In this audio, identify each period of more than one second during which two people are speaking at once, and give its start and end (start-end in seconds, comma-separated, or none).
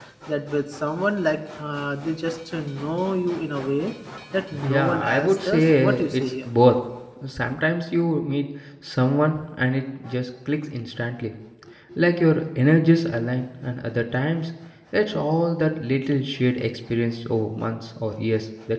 4.6-6.5